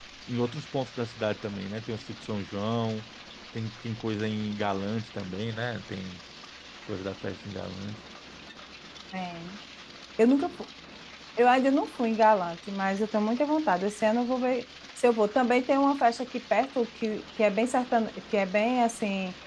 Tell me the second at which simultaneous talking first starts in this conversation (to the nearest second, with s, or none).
none